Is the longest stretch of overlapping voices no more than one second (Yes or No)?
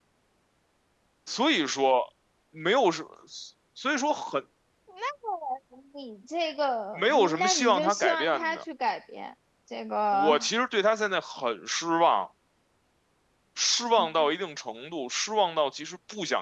No